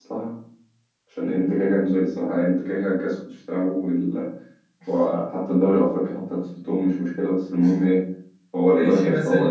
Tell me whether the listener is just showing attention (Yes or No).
No